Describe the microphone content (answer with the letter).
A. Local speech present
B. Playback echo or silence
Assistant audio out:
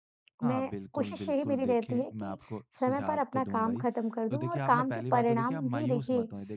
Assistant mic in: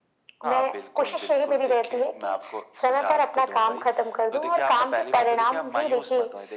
B